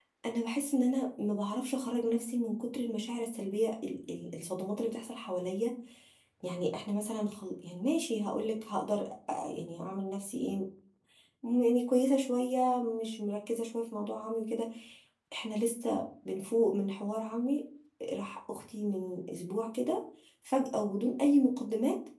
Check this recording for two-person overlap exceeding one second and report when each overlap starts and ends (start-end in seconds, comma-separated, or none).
none